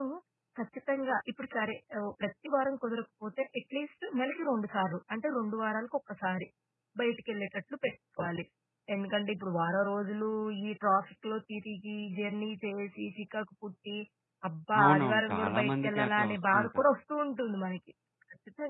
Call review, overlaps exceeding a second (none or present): present